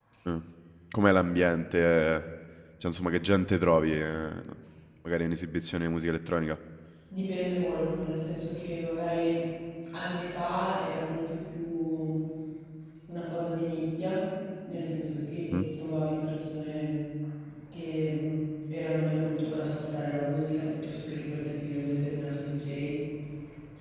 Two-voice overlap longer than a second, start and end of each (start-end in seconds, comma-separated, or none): none